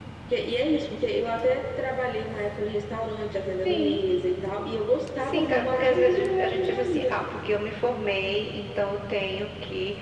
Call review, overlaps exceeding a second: present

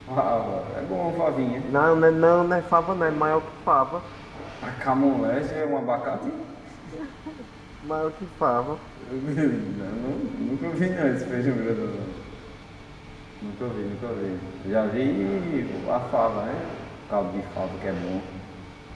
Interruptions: none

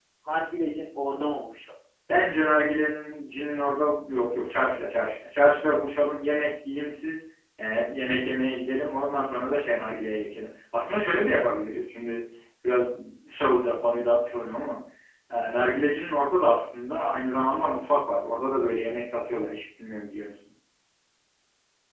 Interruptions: none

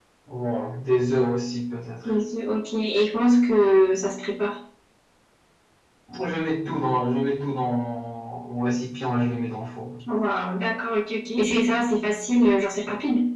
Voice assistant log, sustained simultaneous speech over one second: none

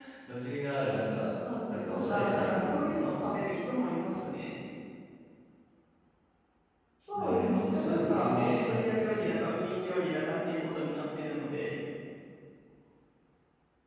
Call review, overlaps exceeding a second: present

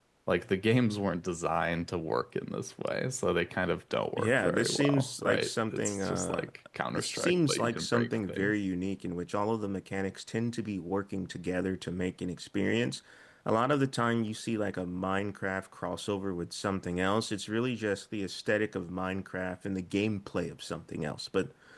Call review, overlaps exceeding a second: present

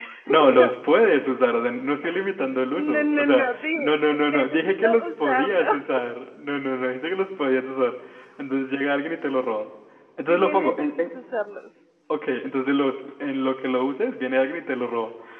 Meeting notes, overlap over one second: present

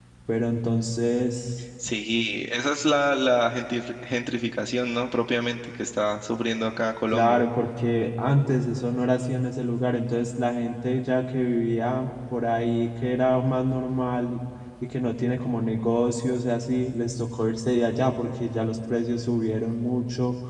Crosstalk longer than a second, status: none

